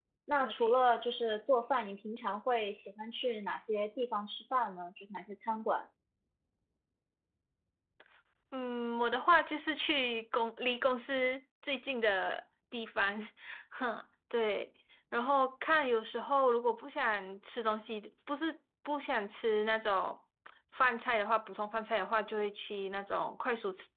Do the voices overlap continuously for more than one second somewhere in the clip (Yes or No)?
No